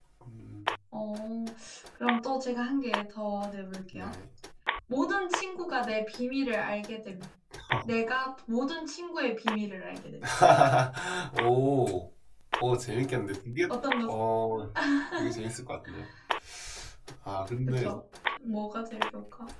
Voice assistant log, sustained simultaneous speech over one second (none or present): none